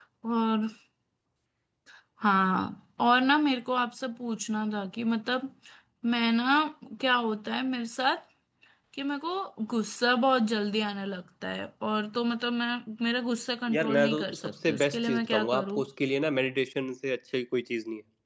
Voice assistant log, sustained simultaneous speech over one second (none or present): present